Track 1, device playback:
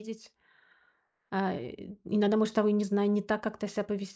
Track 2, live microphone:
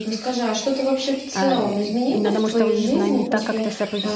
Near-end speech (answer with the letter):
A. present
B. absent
A